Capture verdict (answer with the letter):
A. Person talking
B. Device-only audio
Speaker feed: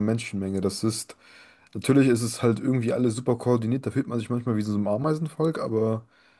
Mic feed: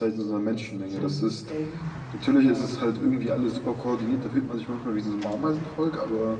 A